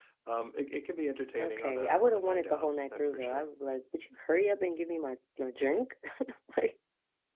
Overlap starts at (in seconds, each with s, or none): 1.4 s